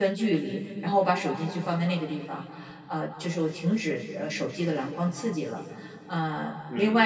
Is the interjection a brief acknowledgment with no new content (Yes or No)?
Yes